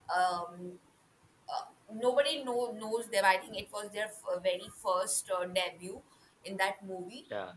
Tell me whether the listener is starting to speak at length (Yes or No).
No